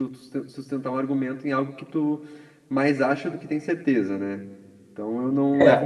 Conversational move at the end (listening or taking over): listening